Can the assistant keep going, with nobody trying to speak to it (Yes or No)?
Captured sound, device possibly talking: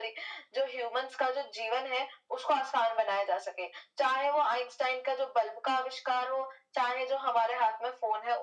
Yes